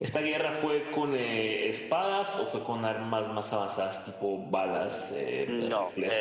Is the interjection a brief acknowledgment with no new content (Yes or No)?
No